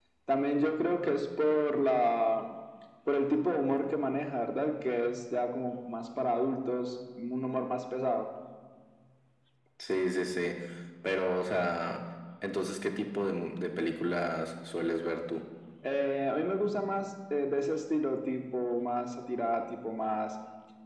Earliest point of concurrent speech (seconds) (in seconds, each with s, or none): none